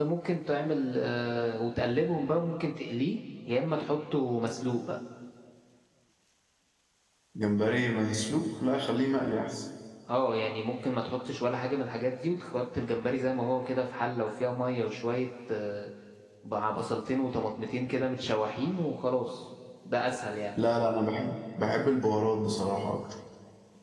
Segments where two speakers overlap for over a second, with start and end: none

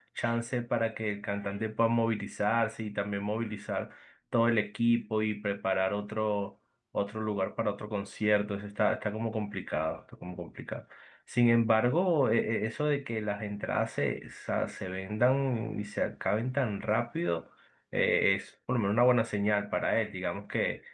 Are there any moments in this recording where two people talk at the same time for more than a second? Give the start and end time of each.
none

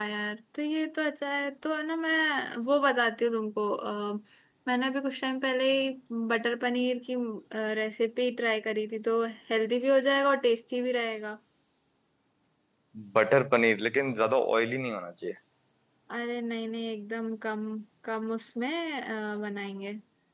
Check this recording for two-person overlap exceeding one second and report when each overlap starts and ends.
none

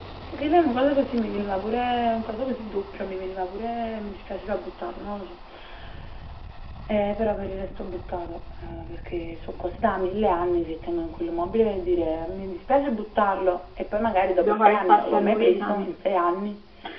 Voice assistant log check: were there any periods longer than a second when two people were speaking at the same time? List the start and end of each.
14.4-15.9

